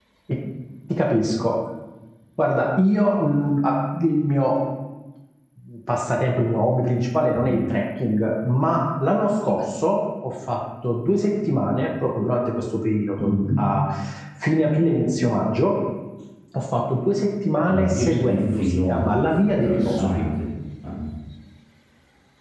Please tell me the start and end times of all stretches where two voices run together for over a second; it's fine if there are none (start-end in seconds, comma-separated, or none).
17.7-20.1